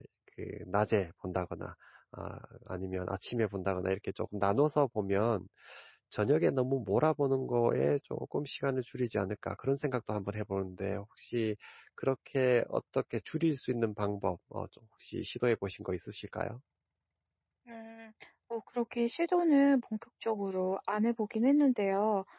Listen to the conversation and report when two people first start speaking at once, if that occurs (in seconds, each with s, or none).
none